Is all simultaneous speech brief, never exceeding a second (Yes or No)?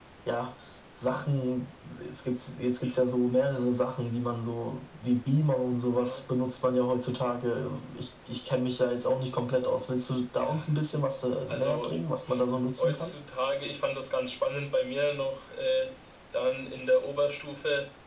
Yes